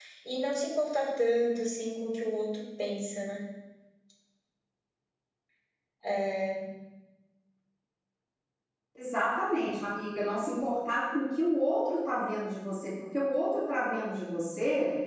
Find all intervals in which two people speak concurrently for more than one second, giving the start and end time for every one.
none

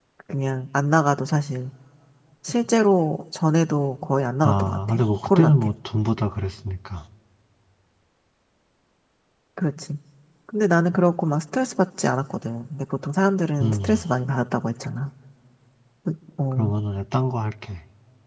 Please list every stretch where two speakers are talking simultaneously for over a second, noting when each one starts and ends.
4.4-5.7

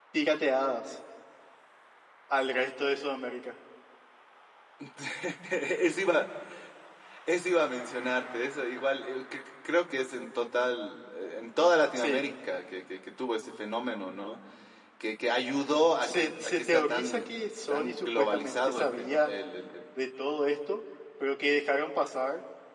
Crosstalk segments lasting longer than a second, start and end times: 16.0-17.3, 17.7-19.3

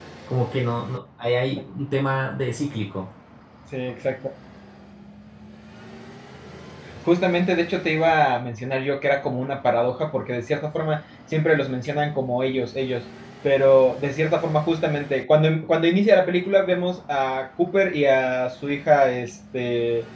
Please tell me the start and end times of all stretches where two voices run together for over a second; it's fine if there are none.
none

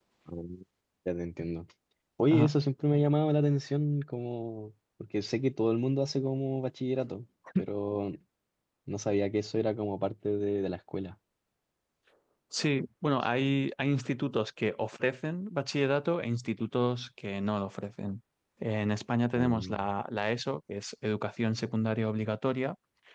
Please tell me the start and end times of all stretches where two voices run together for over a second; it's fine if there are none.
none

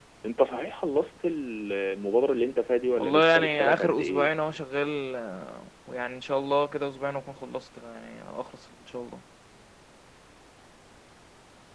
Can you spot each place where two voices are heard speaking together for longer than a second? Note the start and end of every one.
3.0-4.3

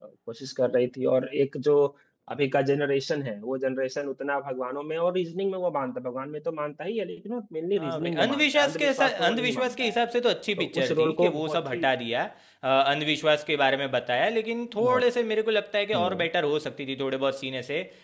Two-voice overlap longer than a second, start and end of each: 7.8-10.0, 10.6-11.8

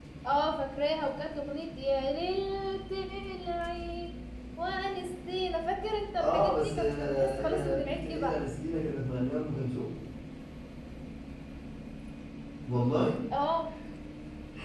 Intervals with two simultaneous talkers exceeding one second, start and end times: 6.2-8.4

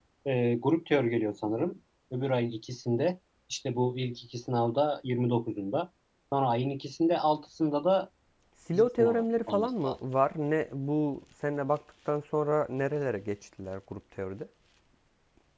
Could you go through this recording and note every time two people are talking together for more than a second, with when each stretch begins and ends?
8.7-10.0

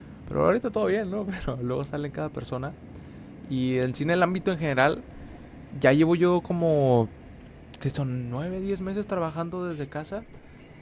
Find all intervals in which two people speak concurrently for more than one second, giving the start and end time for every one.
none

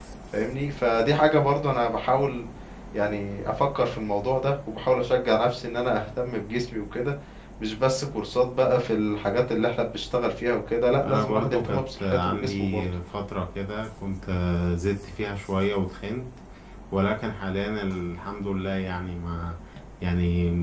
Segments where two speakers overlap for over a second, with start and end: 11.0-12.8

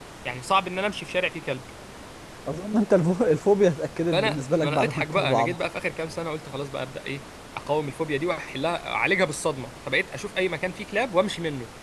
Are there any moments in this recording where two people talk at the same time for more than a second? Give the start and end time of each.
4.1-5.5

